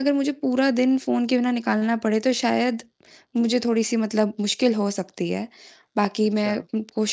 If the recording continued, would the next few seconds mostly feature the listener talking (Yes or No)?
No